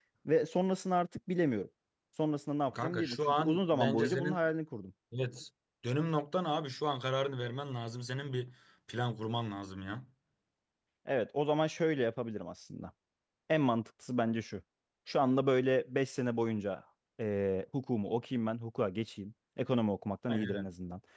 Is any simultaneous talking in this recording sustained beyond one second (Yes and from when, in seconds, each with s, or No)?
Yes, from 2.7 s